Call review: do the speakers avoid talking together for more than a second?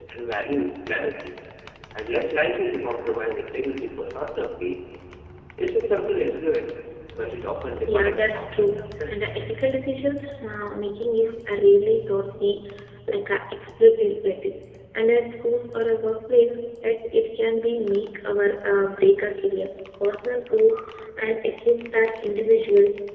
No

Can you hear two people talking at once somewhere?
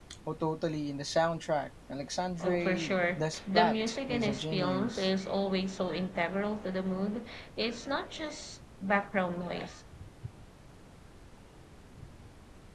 Yes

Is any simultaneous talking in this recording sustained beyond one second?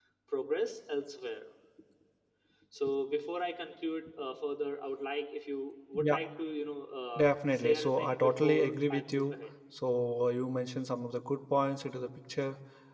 Yes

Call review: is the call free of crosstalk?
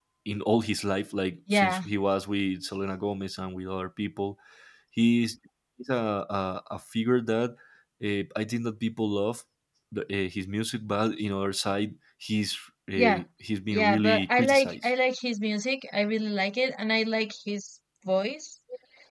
No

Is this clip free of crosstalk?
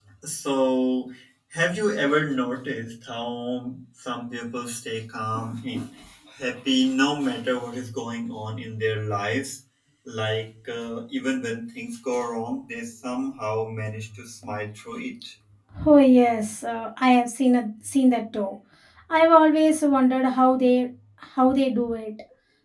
Yes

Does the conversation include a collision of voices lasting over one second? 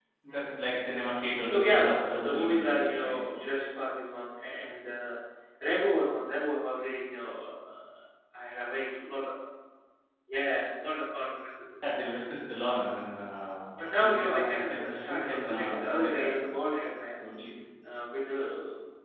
Yes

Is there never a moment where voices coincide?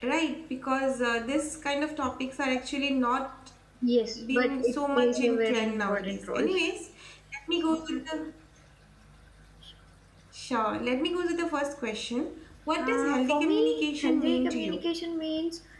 No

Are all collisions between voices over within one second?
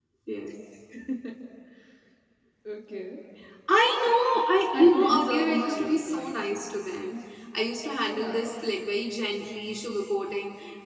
No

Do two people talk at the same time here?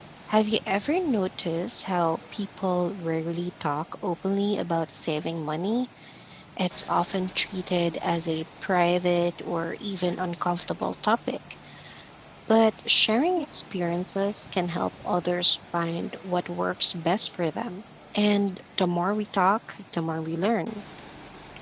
No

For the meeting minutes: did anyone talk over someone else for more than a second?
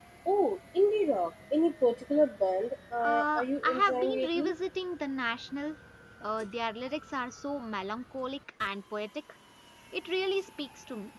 Yes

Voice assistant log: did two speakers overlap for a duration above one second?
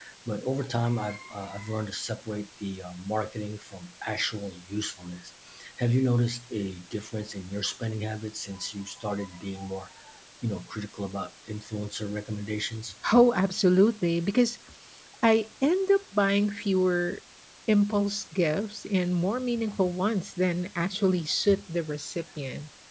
No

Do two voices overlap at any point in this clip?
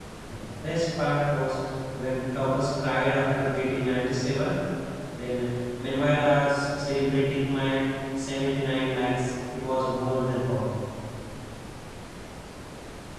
No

